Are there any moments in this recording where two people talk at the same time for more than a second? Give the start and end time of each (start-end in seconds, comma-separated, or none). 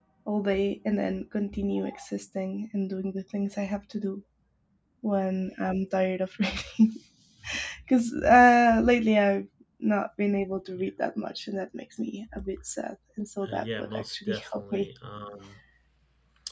13.5-14.9